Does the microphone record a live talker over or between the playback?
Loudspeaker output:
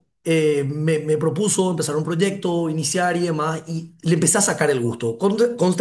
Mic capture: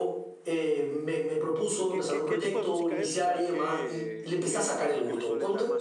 Yes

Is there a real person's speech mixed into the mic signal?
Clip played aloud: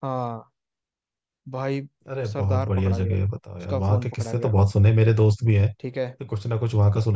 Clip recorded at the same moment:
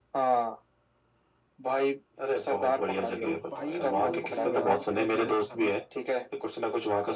Yes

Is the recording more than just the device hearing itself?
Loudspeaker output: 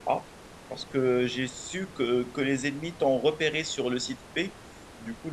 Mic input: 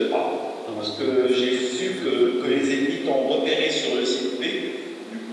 Yes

